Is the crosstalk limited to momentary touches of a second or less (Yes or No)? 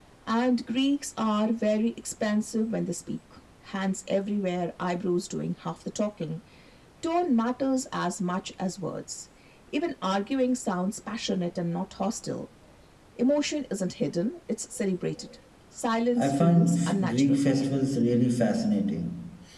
No